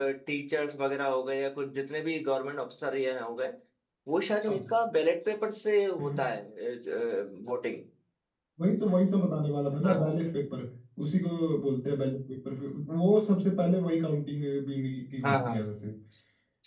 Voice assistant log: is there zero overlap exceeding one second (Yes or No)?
Yes